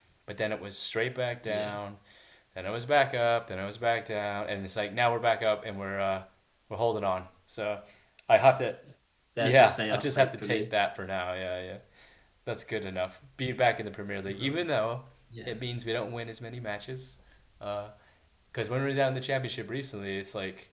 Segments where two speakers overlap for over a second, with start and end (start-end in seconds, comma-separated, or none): 9.4-10.7